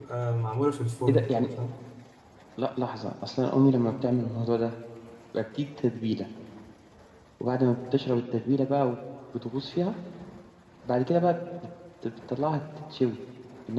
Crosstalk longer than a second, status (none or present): none